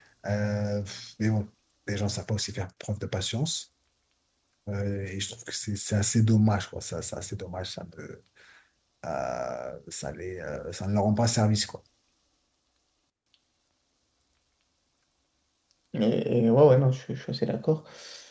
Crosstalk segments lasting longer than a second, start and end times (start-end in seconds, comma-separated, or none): none